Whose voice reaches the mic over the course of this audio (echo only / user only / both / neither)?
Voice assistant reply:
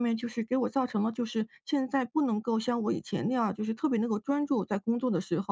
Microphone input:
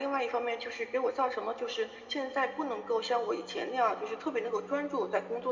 echo only